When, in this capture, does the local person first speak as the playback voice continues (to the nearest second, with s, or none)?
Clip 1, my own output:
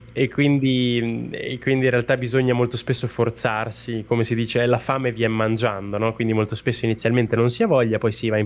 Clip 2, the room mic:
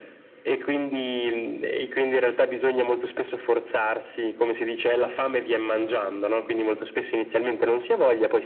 none